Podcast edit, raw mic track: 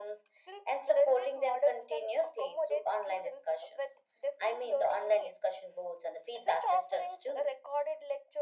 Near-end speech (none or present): none